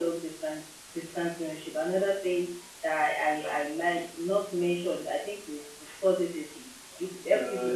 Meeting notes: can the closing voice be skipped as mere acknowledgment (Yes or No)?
No